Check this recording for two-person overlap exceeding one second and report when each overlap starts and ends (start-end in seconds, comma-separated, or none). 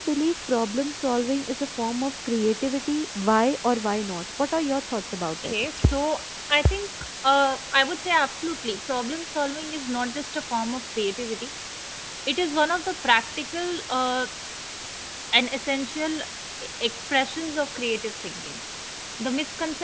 none